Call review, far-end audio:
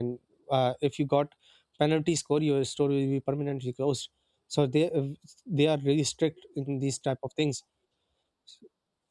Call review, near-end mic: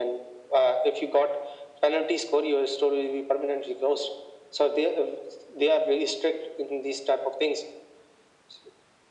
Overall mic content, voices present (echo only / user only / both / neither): echo only